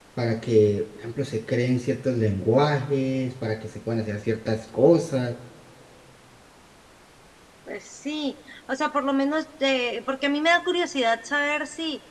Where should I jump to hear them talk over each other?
none

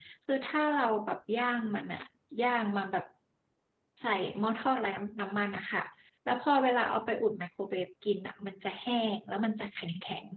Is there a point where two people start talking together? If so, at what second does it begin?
none

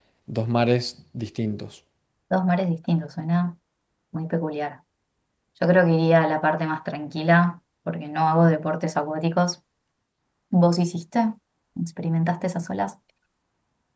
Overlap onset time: none

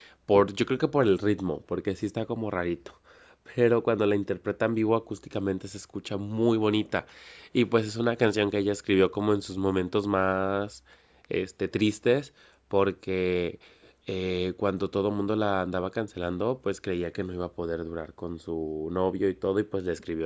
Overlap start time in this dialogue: none

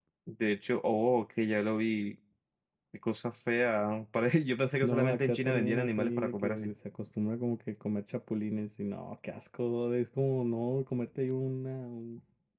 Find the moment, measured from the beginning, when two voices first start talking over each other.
5 s

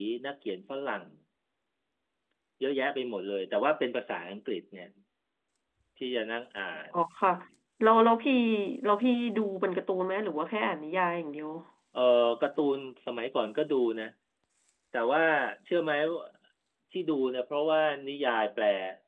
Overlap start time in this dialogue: none

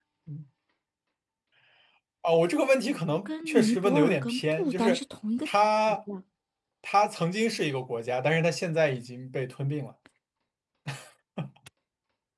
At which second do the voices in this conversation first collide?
3 s

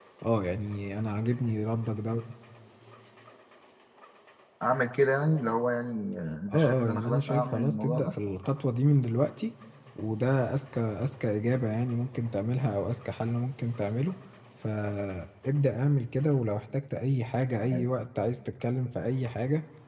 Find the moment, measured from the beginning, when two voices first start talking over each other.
6 s

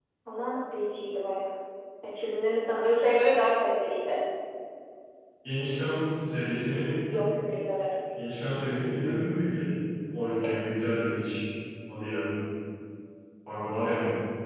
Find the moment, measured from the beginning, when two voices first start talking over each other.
none

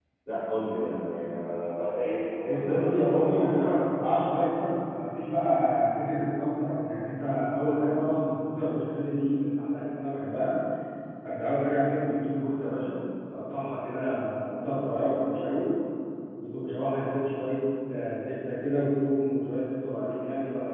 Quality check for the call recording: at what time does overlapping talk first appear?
2 s

